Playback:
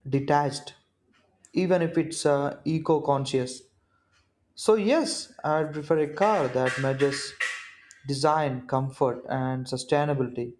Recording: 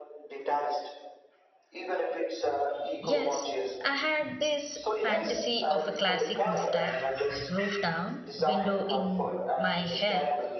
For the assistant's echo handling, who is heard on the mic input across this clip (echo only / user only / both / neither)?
both